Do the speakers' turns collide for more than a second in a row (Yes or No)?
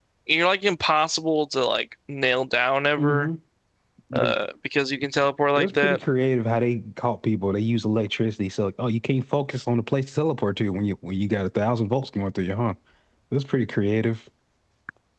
No